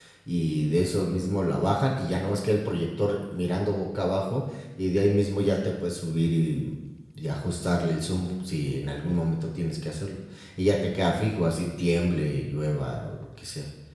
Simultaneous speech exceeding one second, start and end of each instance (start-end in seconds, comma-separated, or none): none